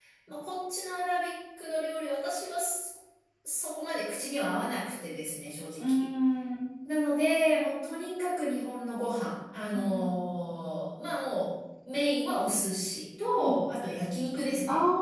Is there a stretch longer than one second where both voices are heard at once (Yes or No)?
No